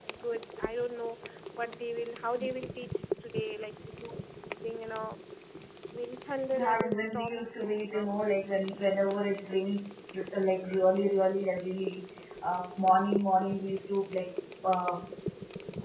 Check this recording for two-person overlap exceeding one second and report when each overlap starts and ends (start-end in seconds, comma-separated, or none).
6.5-8.2